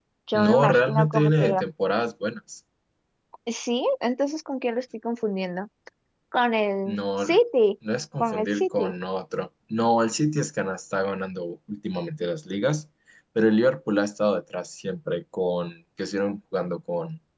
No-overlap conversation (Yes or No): No